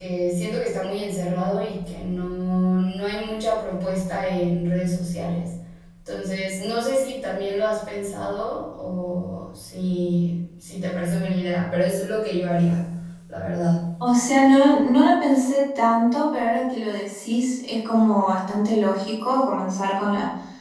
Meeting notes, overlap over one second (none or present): none